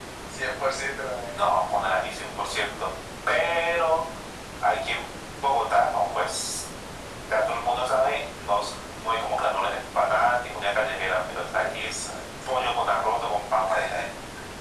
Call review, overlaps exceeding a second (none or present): none